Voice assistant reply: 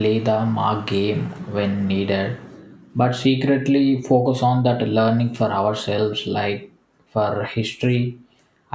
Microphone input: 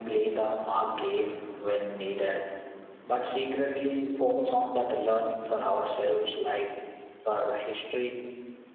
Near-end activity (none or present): none